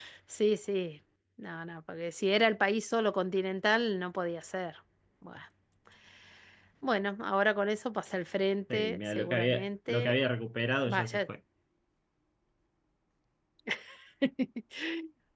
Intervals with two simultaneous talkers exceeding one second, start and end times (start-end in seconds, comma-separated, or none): 8.7-10.1